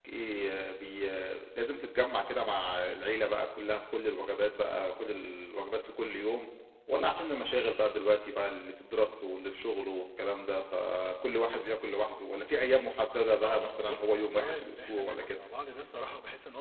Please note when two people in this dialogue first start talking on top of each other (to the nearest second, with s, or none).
13 s